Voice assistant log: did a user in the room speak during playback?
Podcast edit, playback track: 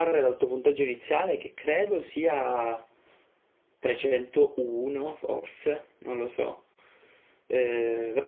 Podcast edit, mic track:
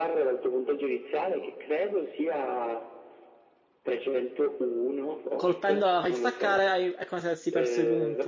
Yes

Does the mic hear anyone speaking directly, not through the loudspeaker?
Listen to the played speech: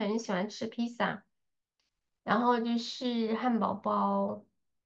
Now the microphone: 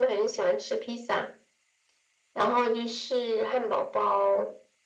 No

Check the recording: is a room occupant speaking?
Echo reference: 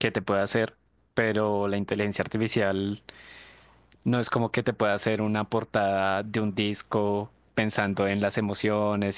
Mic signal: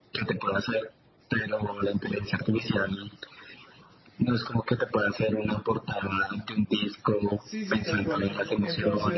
Yes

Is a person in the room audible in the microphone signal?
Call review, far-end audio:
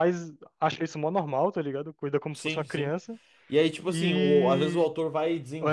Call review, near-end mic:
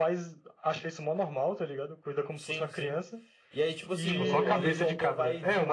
Yes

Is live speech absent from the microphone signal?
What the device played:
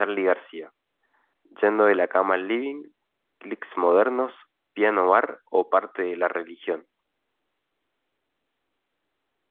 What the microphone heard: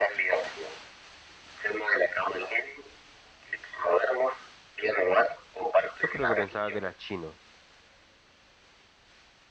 No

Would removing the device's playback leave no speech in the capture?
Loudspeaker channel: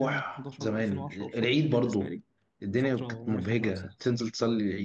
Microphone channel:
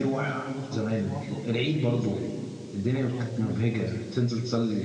Yes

